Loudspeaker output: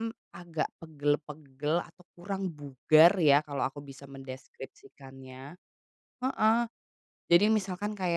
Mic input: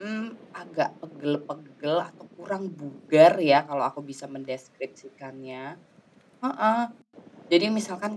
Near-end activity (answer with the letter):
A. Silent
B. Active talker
A